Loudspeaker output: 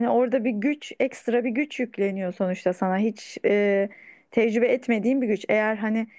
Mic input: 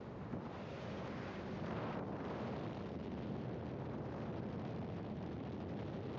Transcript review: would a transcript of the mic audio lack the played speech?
Yes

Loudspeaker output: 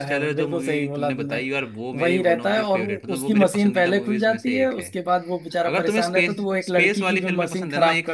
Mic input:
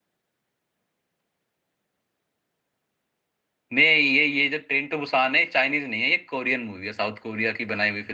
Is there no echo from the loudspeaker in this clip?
Yes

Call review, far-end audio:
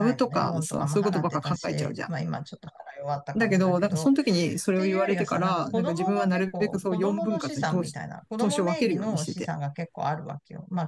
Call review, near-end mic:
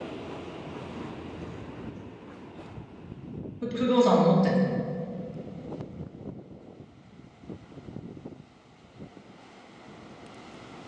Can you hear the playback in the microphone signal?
No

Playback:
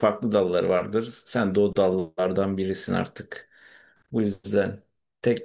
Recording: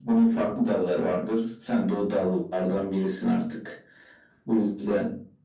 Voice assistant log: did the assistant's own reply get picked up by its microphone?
Yes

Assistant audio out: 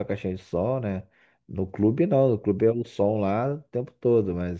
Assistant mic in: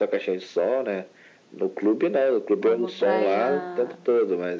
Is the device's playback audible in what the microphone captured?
Yes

